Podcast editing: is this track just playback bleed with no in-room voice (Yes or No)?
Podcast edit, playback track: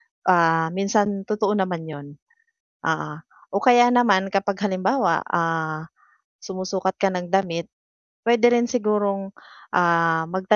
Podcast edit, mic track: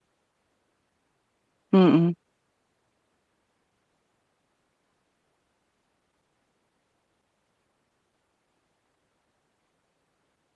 No